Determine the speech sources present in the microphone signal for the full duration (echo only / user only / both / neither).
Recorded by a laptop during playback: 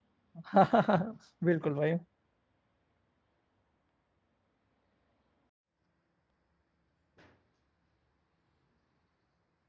user only